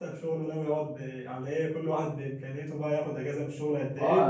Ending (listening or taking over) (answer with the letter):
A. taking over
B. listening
A